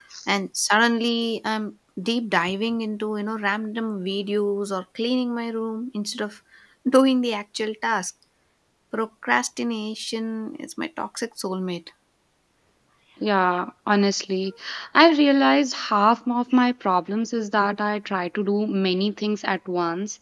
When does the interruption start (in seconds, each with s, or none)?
none